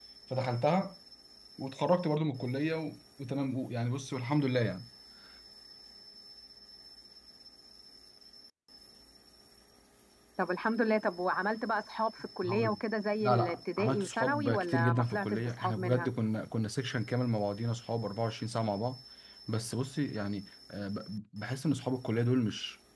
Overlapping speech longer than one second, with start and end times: 13.2-16.1

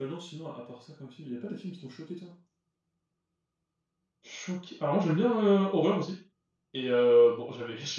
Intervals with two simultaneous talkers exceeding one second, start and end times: none

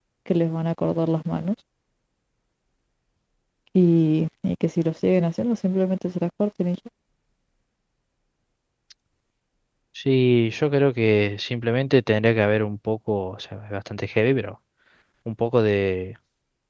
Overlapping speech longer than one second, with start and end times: none

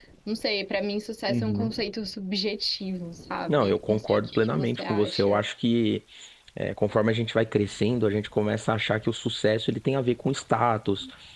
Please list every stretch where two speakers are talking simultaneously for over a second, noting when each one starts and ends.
3.5-5.4

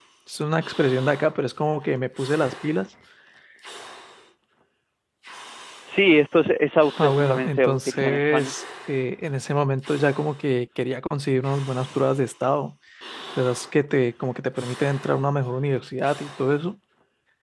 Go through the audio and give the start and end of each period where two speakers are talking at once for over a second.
7.0-8.5

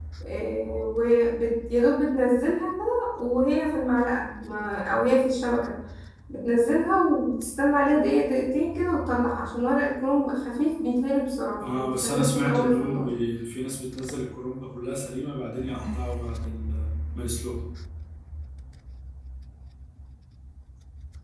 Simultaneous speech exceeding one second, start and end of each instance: 11.6-13.1

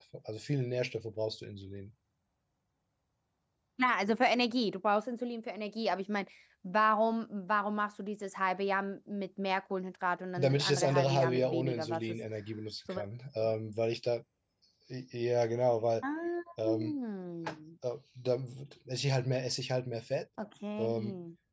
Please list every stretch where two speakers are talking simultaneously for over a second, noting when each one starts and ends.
10.4-12.2

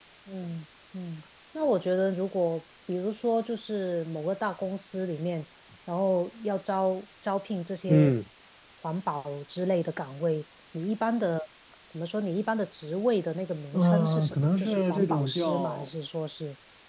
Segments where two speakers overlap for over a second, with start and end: 13.7-15.9

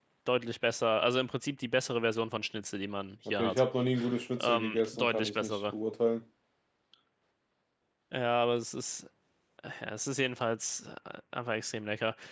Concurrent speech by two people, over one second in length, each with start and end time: 4.4-5.6

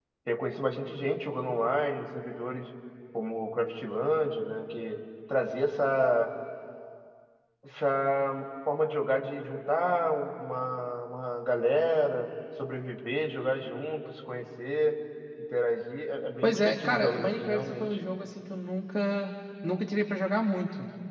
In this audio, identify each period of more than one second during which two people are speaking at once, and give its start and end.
16.4-18.0

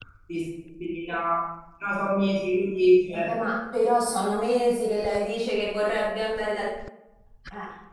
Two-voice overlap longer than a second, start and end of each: none

